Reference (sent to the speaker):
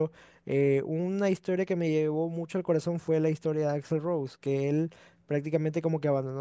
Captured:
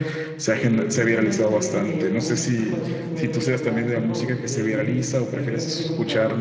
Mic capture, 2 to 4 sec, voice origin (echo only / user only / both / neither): both